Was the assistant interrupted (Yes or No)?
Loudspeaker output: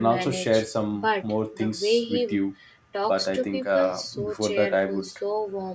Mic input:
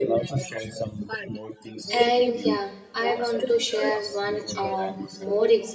Yes